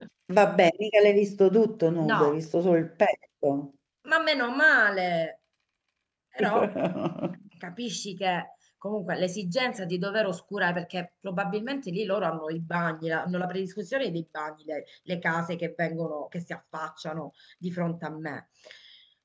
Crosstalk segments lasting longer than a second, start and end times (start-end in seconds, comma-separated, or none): none